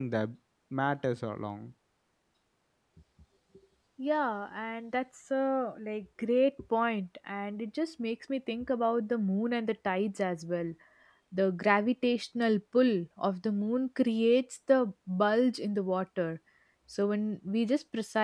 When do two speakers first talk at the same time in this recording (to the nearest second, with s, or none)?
none